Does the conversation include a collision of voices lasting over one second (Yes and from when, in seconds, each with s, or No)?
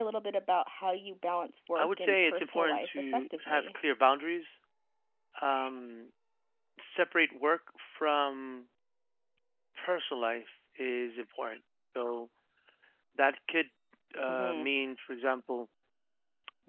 Yes, from 1.8 s